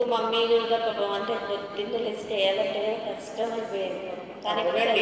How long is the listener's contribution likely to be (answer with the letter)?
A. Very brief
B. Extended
B